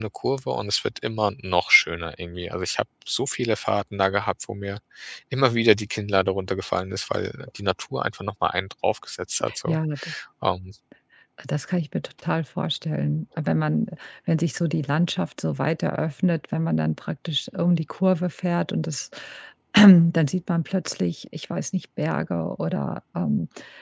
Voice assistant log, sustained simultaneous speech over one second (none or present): none